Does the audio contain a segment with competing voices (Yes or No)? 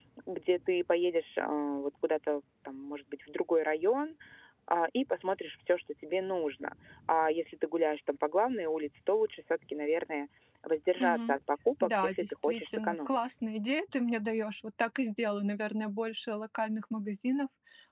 Yes